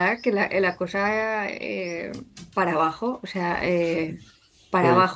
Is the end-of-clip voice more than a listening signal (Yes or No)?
No